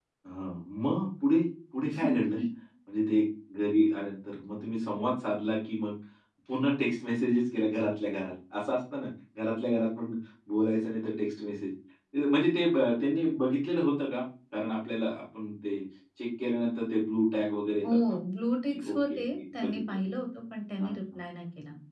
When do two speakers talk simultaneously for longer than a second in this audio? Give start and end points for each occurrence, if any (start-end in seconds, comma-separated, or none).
18.7-20.0